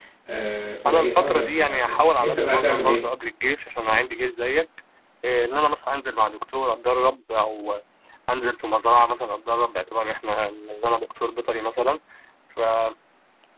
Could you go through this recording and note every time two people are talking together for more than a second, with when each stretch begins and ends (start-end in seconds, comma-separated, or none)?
0.9-3.1